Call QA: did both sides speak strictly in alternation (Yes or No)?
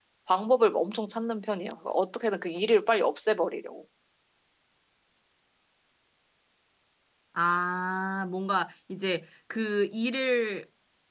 Yes